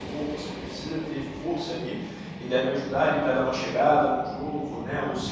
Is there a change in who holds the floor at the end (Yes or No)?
No